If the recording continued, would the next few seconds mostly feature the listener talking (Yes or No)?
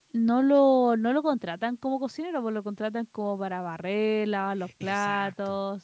No